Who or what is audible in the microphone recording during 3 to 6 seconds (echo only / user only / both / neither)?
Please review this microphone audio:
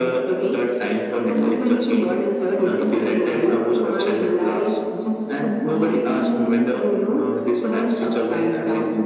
echo only